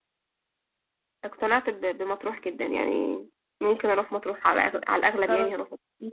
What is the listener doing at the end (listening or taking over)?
taking over